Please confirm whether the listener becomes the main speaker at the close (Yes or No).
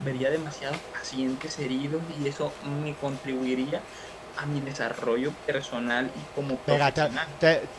Yes